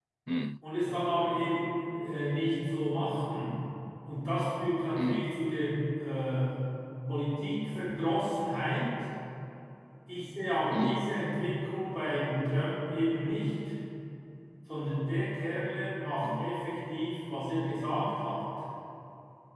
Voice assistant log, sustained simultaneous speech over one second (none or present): none